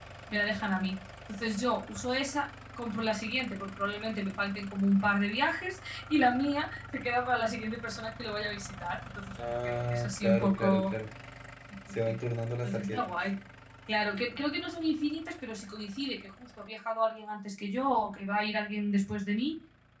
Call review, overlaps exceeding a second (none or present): present